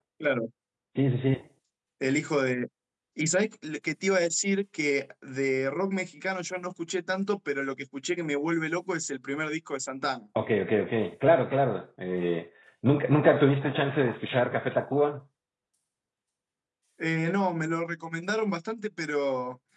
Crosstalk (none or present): none